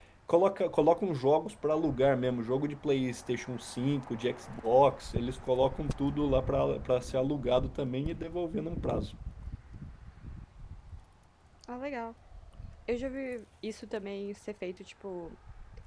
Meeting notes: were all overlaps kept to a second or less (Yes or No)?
Yes